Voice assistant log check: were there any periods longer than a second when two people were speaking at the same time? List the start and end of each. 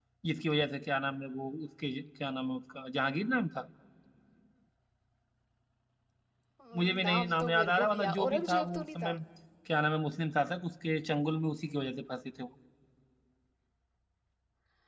6.8-9.2

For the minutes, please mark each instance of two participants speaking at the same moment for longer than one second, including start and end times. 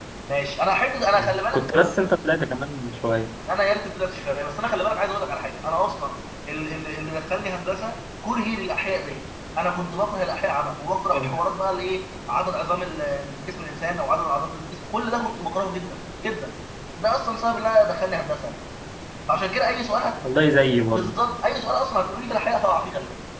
none

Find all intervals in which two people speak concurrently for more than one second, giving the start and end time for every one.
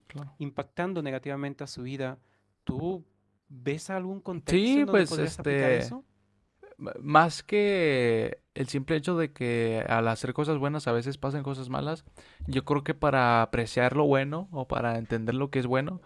4.5-5.9

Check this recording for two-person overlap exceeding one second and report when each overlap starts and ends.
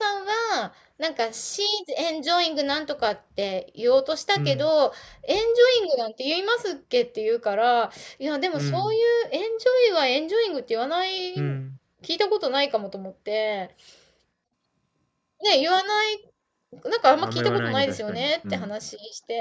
17.0-18.7

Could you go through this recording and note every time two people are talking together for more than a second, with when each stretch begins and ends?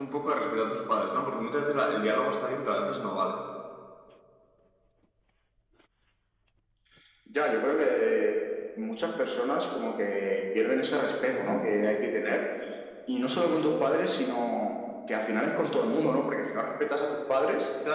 none

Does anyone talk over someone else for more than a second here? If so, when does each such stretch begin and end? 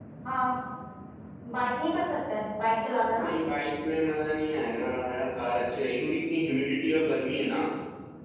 none

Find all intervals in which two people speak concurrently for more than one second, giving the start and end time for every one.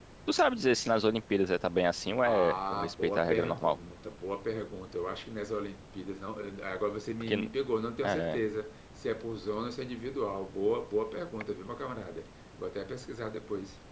2.2-3.8

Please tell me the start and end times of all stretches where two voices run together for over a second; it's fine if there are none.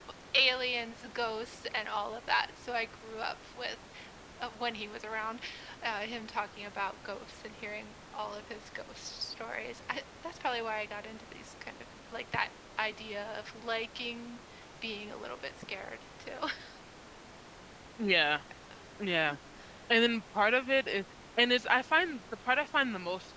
none

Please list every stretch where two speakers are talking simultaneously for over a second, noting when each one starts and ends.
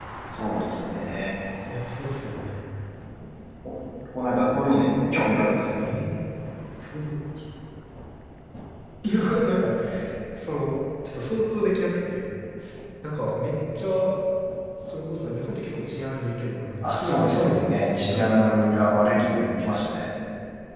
16.8-19.0

